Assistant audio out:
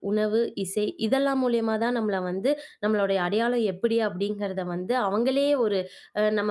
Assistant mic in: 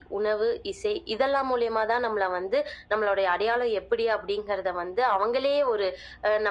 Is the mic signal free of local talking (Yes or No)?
Yes